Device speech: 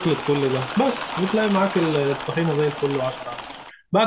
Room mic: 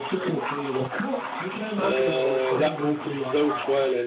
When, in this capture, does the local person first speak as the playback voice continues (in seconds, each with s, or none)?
1.8 s